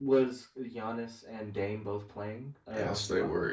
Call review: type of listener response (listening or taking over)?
taking over